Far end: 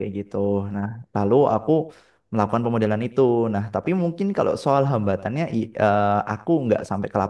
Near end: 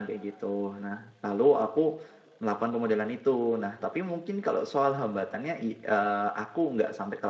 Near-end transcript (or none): none